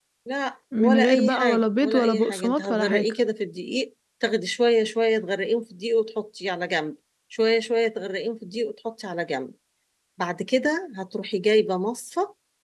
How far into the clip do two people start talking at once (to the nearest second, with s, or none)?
1 s